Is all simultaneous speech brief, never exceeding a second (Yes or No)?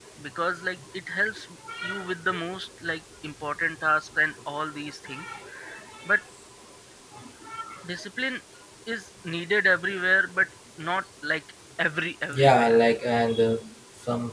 Yes